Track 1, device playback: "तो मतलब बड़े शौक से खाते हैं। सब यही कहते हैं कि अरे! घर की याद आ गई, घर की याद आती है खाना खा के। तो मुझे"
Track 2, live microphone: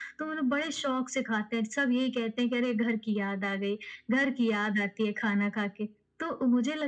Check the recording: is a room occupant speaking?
No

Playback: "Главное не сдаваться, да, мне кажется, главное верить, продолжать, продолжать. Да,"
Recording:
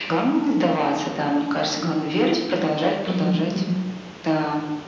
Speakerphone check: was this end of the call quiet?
No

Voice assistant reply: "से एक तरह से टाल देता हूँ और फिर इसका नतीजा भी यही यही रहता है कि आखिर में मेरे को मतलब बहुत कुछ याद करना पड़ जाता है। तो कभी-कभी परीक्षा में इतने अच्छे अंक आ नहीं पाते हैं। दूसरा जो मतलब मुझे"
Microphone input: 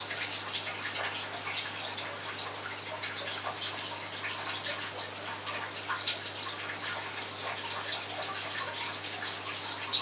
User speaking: No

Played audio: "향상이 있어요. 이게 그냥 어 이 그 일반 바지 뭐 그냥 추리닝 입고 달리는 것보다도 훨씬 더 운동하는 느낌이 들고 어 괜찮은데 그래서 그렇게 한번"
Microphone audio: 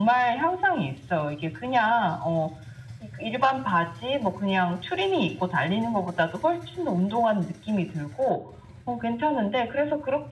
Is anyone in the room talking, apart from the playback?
No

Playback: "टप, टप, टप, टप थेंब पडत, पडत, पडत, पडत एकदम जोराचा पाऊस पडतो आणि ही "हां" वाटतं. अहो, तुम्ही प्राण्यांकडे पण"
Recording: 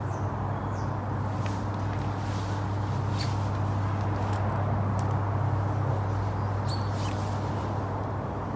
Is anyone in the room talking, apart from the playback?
No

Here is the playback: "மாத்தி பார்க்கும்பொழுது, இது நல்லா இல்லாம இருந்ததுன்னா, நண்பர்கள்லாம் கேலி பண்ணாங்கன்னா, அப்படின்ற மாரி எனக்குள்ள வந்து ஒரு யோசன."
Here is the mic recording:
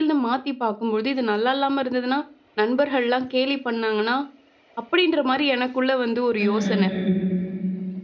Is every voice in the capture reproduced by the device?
No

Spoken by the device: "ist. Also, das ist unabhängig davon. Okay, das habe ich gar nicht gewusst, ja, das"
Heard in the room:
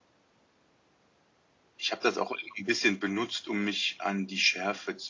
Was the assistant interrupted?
Yes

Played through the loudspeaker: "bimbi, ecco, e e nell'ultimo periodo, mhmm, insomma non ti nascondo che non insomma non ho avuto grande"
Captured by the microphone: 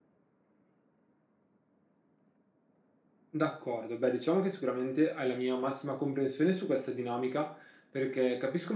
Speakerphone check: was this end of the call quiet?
No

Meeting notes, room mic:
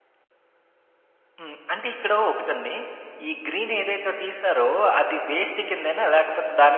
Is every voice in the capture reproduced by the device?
No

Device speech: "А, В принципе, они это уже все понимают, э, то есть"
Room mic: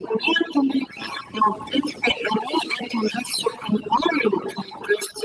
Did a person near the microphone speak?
No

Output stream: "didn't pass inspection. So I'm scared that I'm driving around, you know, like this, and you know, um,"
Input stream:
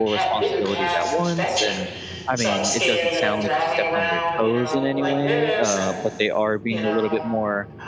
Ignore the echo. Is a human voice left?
Yes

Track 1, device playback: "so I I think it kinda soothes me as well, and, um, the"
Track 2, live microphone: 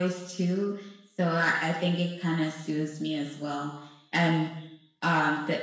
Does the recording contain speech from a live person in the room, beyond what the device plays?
No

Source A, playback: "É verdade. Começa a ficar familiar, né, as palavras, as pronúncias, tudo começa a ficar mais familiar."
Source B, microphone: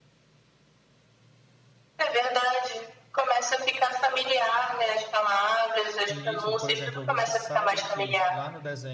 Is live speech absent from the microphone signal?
No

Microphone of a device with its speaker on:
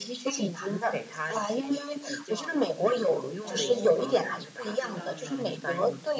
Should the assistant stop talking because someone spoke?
Yes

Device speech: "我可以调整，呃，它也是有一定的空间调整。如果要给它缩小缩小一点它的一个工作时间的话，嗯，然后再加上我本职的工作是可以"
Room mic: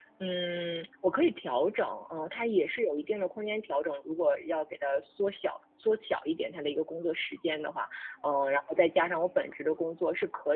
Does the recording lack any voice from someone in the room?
Yes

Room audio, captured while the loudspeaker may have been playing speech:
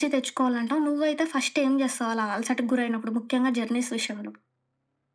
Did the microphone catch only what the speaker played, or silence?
Yes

